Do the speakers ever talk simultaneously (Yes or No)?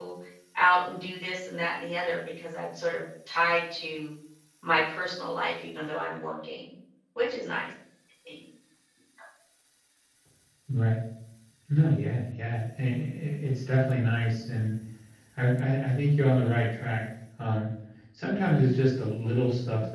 No